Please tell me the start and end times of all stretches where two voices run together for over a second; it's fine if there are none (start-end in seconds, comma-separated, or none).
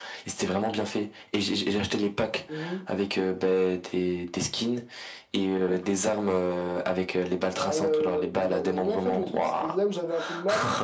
7.5-9.6